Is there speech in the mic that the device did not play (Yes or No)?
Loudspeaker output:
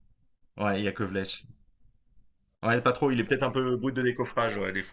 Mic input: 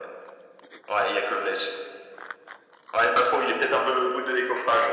No